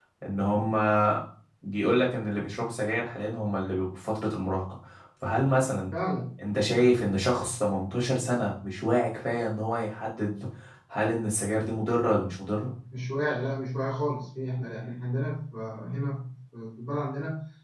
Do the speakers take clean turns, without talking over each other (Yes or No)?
Yes